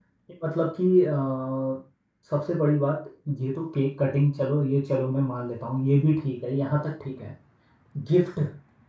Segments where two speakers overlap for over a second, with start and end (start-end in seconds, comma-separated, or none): none